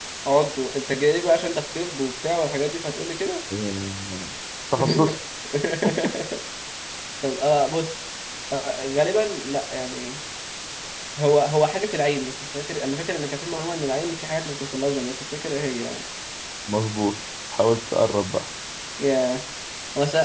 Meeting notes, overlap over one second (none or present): none